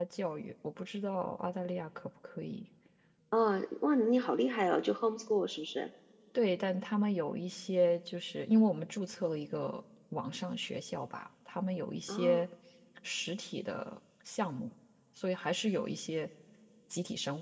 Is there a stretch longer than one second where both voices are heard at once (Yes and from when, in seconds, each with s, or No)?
No